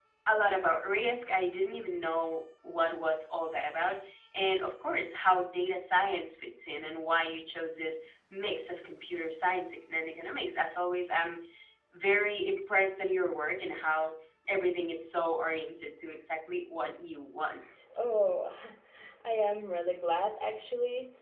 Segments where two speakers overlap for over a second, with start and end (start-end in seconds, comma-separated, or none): none